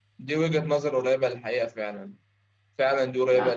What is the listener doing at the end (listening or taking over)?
listening